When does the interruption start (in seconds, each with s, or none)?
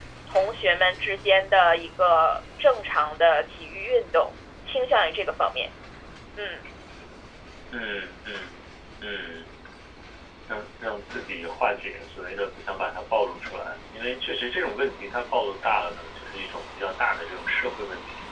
none